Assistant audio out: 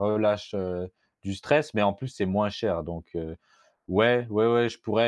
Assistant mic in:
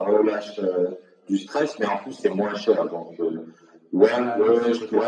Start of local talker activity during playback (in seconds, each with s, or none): 4.1 s